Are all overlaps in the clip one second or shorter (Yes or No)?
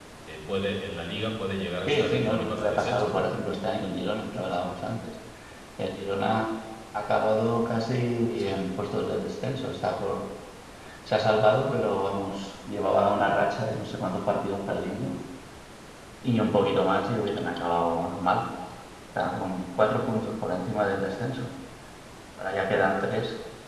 No